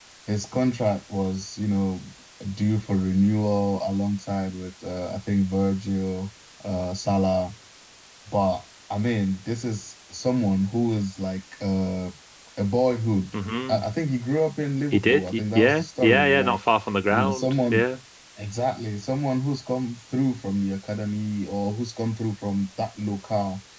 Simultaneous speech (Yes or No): Yes